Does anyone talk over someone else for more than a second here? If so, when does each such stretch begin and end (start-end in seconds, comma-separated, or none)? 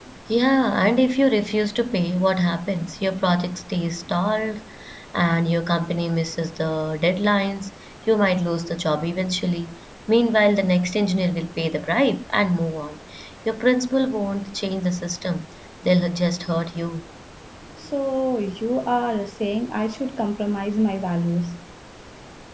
none